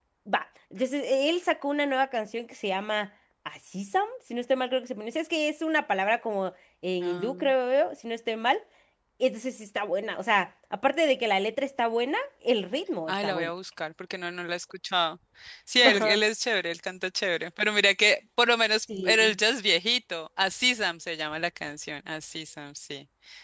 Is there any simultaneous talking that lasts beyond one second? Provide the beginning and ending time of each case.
none

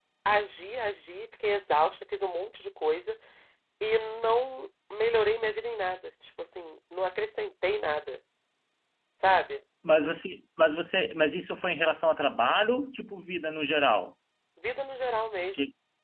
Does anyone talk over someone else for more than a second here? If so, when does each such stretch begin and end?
none

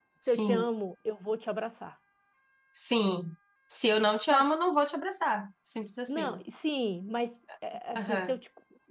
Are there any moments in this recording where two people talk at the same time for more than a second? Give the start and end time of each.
none

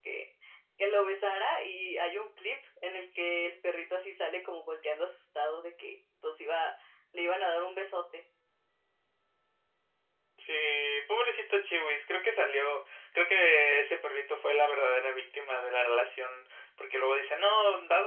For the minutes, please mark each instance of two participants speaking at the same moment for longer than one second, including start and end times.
none

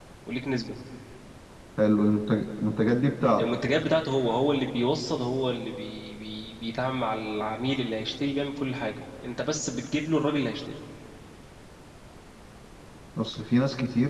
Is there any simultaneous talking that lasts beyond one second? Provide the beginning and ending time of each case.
none

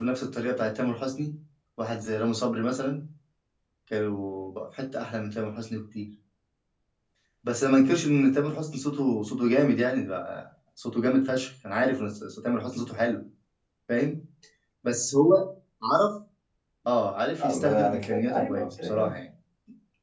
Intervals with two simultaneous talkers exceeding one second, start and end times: 17.4-19.2

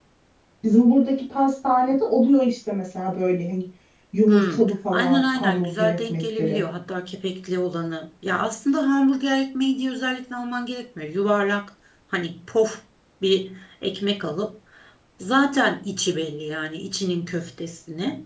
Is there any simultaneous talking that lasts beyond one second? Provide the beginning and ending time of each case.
4.3-6.6

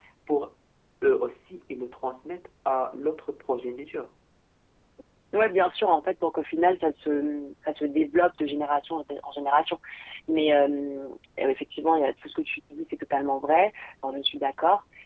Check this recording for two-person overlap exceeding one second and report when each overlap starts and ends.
none

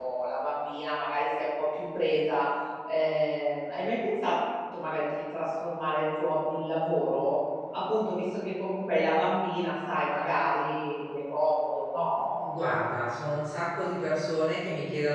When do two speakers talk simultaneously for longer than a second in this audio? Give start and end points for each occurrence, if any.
none

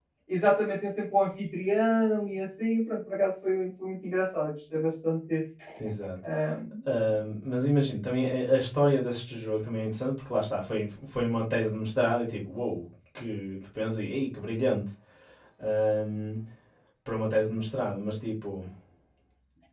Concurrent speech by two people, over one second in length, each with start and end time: none

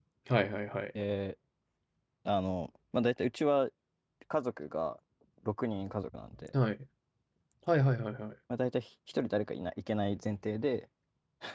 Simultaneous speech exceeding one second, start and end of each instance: none

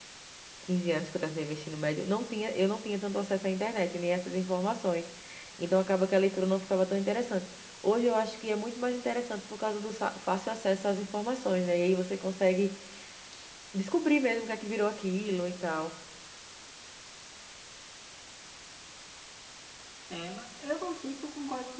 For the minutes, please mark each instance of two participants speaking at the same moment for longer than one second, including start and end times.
none

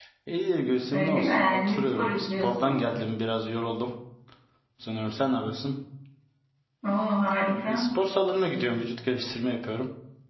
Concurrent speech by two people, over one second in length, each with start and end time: 0.9-2.7

